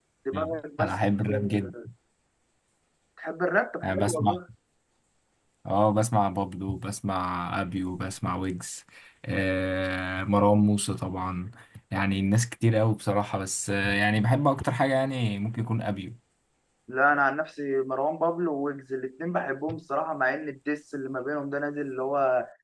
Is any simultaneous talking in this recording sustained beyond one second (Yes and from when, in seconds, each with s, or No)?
No